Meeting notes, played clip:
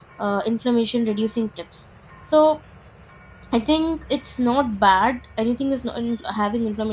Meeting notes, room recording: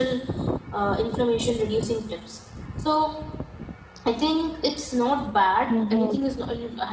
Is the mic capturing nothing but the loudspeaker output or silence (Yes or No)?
No